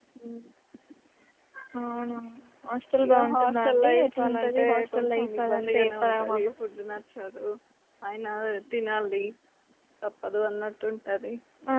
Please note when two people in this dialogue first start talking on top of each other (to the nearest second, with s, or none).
3 s